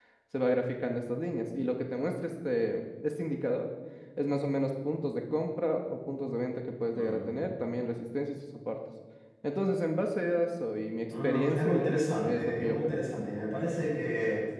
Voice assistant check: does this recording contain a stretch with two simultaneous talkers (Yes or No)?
Yes